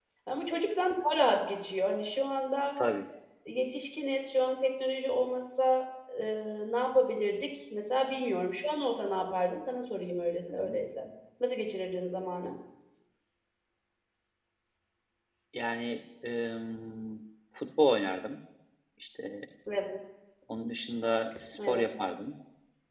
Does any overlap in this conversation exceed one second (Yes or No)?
No